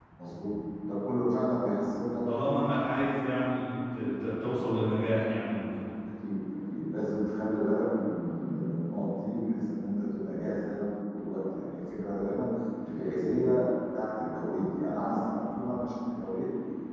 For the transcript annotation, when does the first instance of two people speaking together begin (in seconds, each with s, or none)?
none